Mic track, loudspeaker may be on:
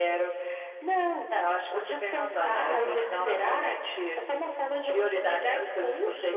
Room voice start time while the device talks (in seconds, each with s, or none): 2.3 s